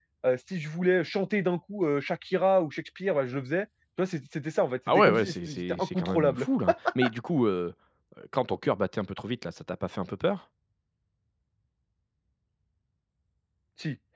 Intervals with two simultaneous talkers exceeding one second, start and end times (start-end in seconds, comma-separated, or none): 4.9-6.5